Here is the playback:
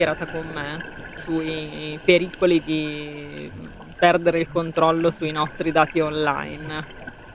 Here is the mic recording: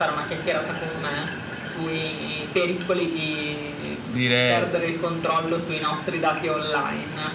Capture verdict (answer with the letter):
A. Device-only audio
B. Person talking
B